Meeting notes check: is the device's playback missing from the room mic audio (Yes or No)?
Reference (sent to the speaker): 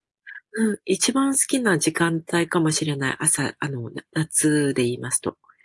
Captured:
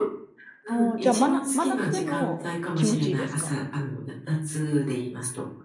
No